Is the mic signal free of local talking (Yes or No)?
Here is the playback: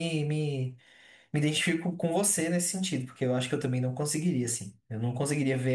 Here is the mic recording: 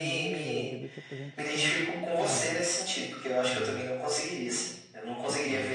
No